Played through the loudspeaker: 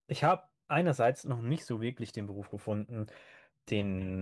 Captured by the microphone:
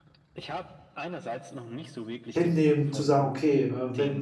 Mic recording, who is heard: both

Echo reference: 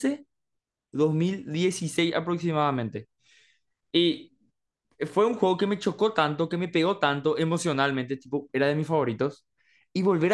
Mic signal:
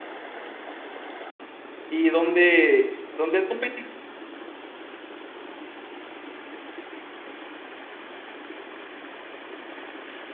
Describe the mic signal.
user only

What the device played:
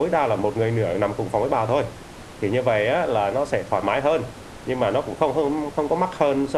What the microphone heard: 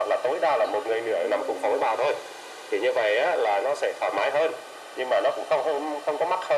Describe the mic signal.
both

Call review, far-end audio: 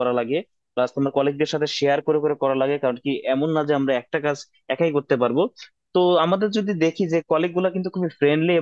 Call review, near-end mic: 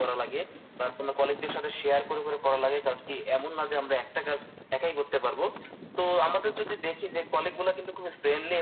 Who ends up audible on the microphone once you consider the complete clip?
echo only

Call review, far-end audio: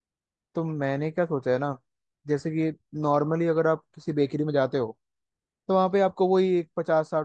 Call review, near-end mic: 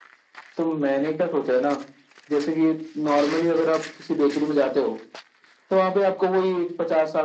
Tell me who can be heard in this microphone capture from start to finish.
echo only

